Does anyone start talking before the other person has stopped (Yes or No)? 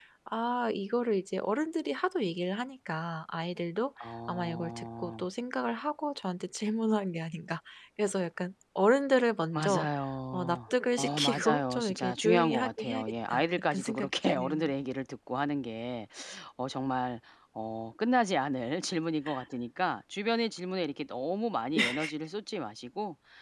Yes